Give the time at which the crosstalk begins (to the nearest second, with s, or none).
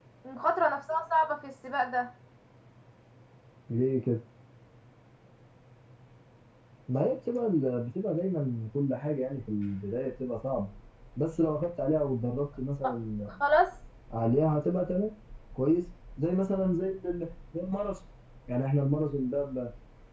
none